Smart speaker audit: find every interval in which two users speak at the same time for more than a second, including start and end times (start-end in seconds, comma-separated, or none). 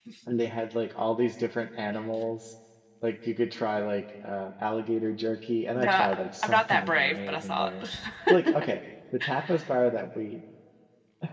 6.4-7.8